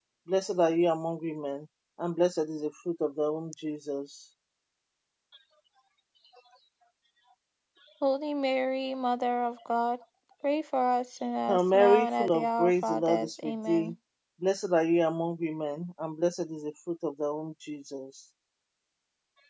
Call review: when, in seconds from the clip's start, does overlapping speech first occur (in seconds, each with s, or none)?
11.5 s